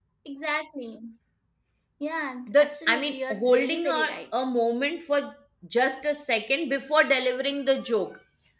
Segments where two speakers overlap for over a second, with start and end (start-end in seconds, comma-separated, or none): 2.5-4.2